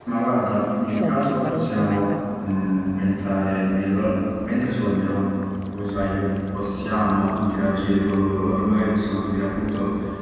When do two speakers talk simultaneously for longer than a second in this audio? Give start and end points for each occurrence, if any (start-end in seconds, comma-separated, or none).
0.9-2.2